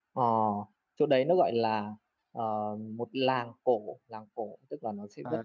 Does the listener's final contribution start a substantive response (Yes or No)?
No